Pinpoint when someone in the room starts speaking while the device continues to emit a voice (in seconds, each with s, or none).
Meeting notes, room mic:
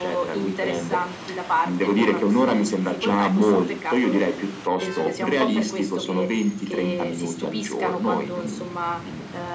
none